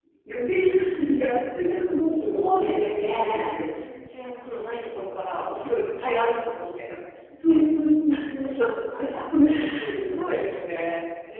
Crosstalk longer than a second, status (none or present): present